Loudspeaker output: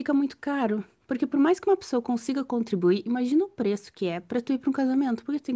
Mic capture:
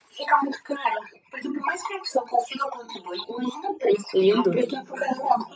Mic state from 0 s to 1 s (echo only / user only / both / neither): echo only